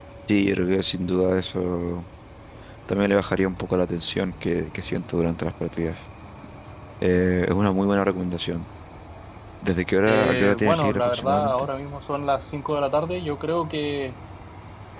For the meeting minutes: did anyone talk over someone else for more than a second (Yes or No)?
Yes